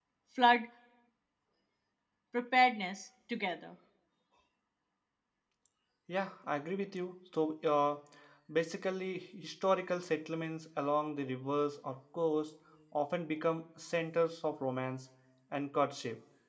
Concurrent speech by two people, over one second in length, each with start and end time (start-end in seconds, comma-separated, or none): none